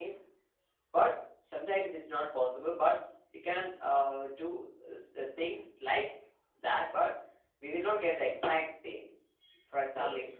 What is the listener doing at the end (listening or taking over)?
taking over